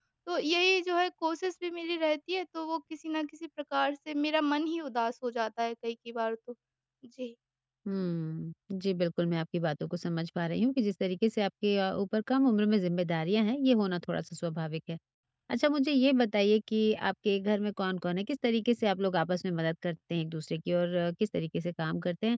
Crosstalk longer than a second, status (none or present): none